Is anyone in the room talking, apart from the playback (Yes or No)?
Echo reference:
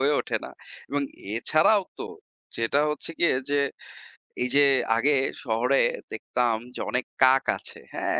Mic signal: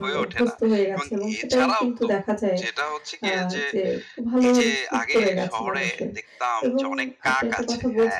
Yes